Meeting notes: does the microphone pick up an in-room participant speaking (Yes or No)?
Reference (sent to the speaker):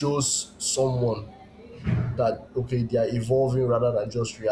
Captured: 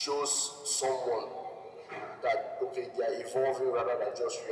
No